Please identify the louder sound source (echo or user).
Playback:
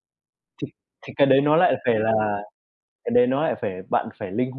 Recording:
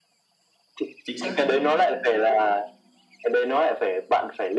echo